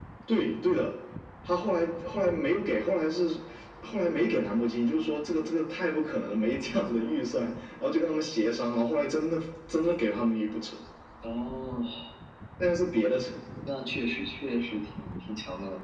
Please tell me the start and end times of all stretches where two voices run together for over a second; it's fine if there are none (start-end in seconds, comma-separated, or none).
none